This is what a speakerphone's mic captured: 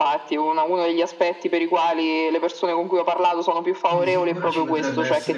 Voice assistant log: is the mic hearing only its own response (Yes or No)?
No